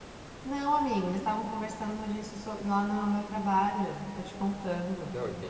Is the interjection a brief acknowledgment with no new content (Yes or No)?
No